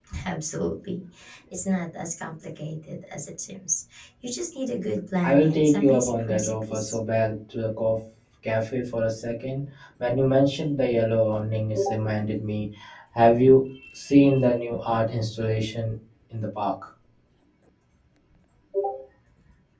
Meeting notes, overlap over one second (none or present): present